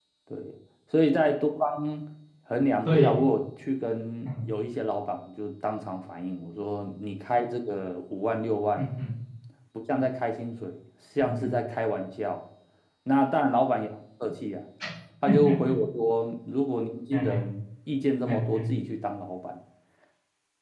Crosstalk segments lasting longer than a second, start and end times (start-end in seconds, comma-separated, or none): none